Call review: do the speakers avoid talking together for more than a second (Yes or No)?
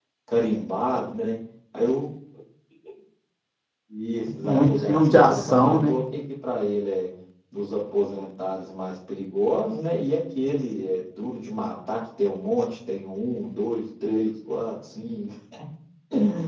No